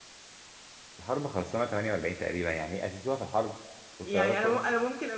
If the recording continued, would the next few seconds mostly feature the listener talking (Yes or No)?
Yes